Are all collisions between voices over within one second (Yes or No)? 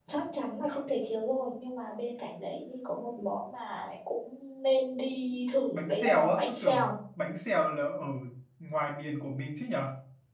No